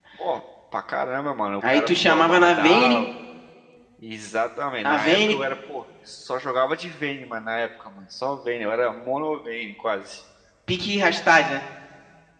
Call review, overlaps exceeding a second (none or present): present